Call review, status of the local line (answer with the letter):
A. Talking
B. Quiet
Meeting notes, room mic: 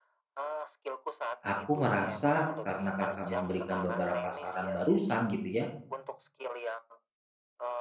A